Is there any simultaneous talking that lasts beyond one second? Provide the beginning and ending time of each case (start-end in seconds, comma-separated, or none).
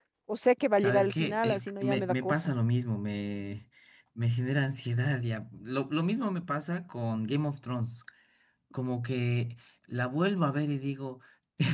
0.8-2.5